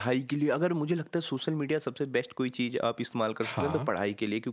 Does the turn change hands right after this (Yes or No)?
No